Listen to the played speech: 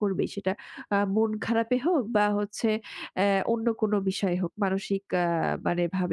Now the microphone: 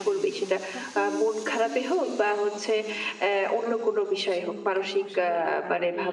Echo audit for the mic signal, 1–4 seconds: both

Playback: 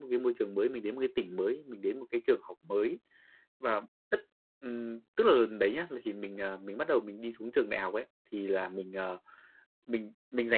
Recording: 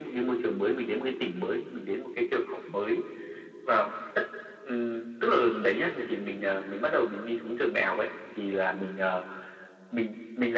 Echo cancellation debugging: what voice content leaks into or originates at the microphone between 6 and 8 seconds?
echo only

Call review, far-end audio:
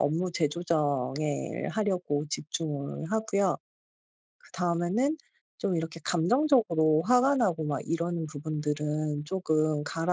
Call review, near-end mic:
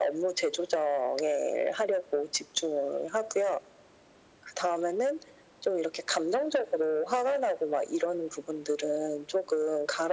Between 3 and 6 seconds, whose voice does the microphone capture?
echo only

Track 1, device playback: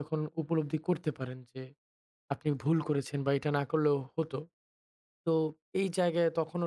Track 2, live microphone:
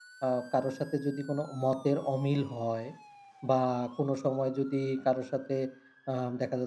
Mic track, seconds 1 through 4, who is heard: user only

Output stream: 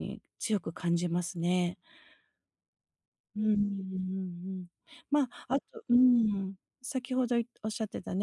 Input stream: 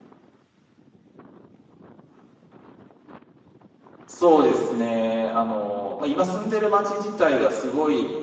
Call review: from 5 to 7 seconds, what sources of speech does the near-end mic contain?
user only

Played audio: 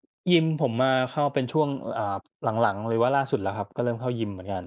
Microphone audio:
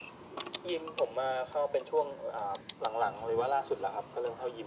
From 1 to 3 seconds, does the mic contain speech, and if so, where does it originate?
echo only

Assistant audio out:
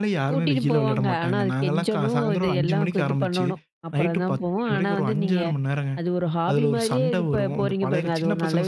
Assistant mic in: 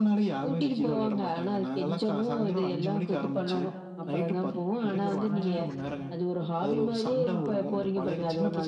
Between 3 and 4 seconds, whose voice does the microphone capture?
both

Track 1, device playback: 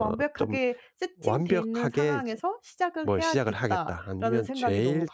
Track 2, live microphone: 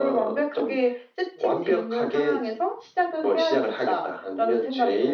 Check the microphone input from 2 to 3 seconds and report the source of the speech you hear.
echo only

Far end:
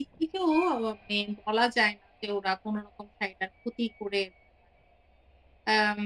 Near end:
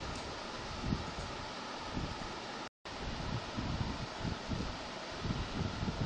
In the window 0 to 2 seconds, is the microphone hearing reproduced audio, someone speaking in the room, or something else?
neither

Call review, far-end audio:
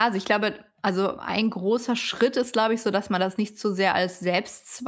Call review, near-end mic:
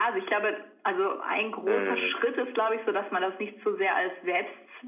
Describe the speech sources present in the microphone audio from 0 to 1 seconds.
echo only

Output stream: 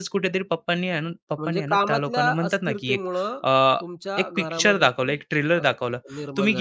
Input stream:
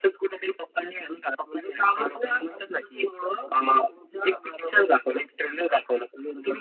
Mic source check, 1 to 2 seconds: both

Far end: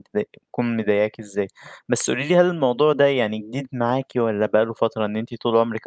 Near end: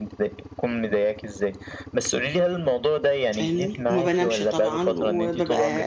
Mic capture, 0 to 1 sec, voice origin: echo only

